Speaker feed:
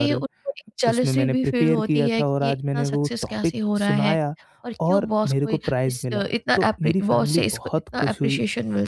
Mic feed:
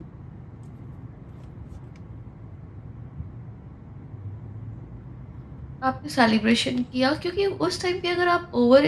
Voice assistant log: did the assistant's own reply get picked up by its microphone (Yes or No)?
No